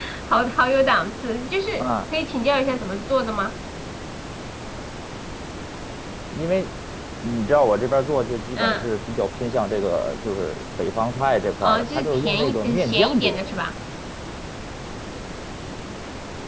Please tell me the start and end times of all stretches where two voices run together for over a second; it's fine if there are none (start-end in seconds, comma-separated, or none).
11.6-13.5